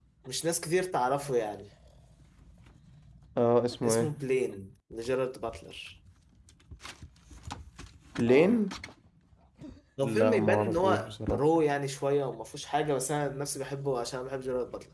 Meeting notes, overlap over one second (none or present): present